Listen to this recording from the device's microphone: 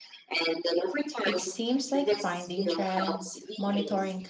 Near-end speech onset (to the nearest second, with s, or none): 1 s